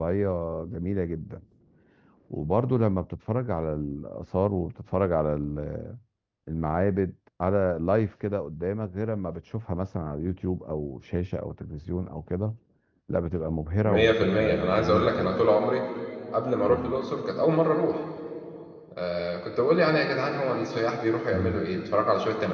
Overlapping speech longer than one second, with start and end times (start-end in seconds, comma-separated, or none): 13.8-15.5